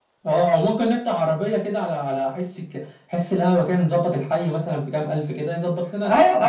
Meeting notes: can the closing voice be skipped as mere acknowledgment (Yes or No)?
No